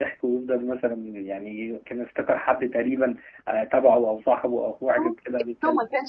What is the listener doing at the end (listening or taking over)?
taking over